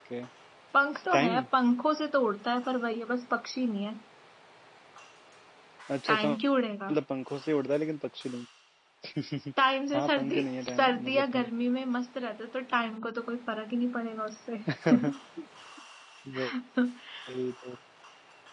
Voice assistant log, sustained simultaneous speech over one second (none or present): present